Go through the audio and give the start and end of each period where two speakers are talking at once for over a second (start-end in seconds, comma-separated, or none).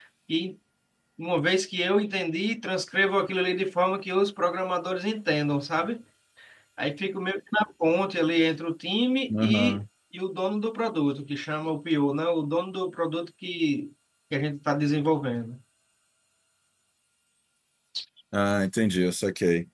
none